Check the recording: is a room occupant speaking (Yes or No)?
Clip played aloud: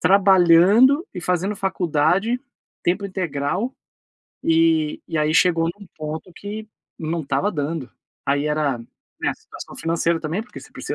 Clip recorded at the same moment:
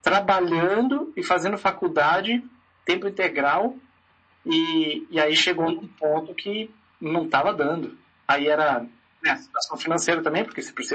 No